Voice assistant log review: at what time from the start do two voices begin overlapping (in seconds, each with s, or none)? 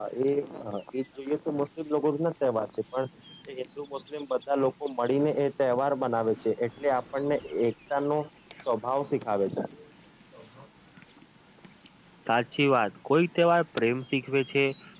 none